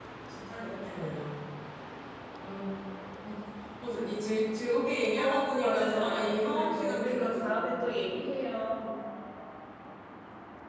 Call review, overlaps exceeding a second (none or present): present